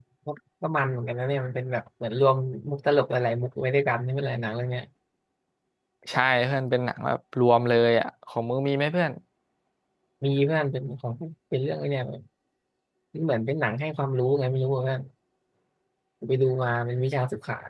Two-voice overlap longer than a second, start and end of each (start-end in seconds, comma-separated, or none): none